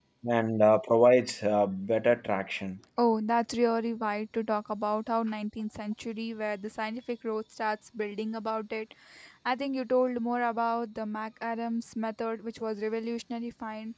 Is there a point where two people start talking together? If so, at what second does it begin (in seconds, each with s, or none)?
none